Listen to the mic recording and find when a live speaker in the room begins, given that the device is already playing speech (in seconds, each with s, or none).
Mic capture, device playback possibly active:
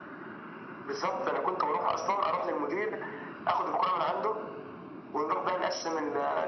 none